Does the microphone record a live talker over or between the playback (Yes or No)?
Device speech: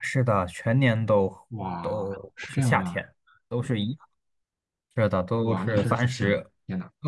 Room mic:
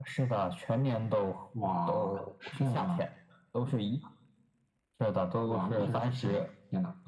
No